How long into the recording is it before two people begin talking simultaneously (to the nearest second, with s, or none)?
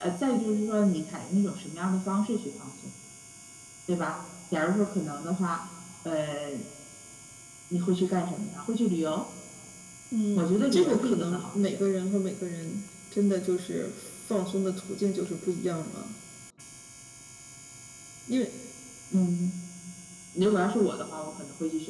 10 s